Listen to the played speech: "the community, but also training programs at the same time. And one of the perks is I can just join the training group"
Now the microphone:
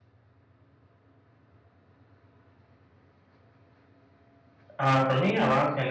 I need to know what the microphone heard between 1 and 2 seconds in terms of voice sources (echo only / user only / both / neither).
neither